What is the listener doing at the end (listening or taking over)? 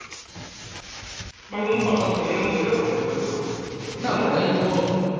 taking over